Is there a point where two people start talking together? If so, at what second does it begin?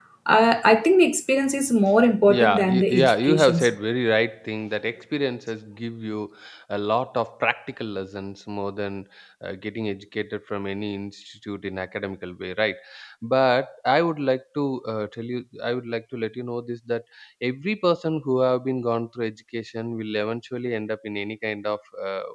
2.3 s

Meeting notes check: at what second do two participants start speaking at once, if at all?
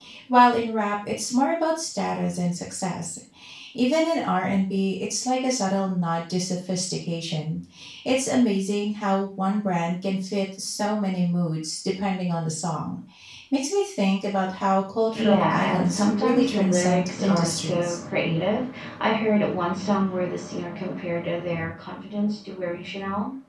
15.1 s

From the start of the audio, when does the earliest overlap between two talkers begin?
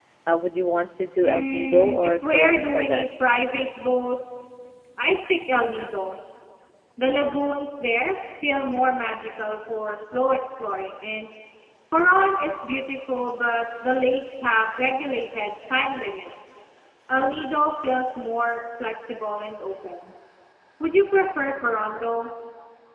1.2 s

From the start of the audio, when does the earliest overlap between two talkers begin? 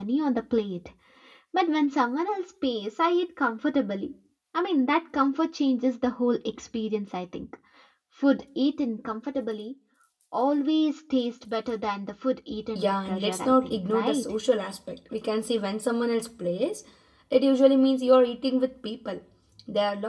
12.7 s

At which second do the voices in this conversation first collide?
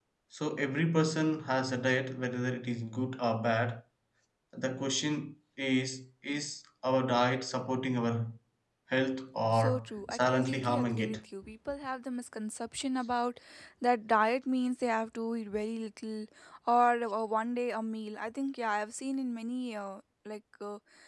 9.5 s

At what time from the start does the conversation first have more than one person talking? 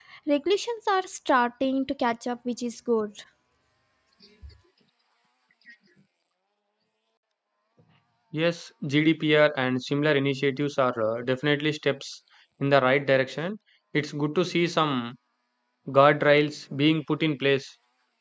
none

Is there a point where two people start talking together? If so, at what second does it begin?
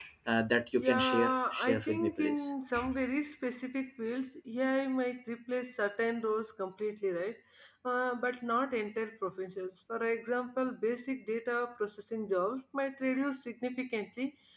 0.8 s

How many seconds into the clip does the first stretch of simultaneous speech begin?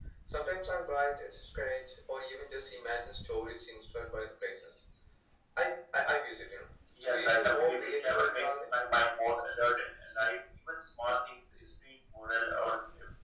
6.9 s

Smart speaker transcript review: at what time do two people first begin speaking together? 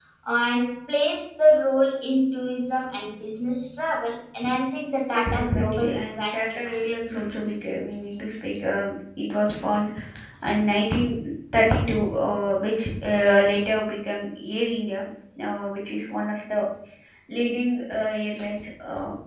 5.1 s

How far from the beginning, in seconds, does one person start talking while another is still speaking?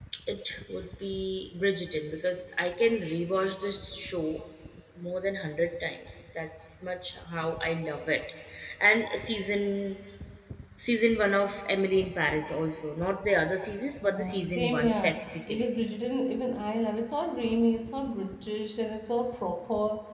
14.0 s

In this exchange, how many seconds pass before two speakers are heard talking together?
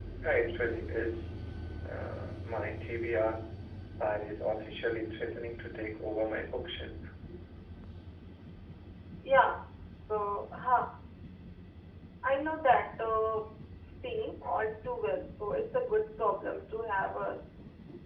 none

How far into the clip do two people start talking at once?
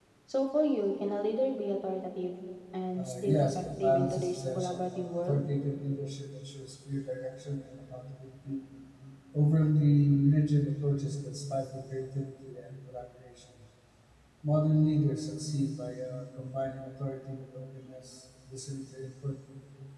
3.0 s

